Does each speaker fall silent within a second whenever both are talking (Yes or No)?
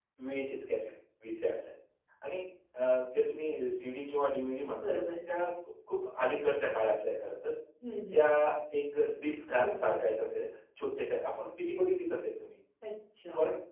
Yes